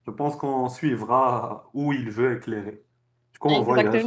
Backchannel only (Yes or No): Yes